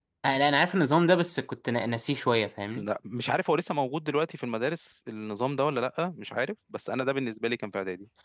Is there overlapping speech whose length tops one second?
No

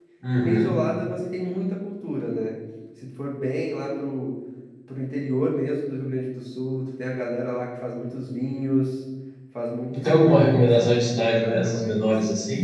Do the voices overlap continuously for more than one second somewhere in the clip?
Yes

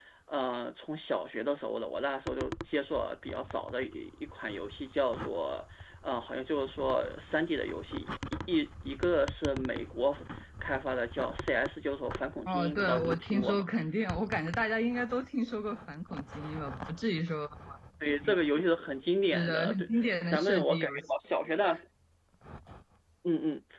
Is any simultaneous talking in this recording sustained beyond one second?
Yes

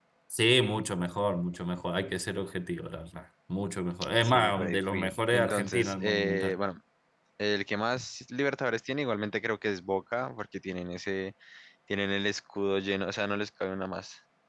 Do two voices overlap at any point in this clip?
Yes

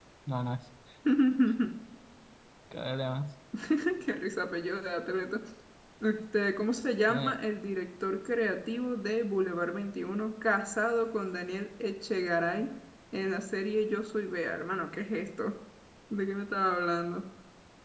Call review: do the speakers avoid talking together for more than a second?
Yes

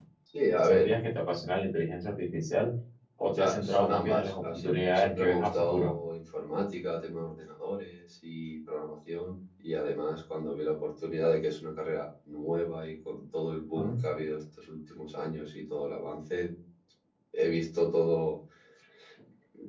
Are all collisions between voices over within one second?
No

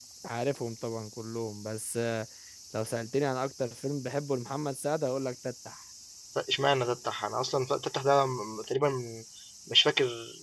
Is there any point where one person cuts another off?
No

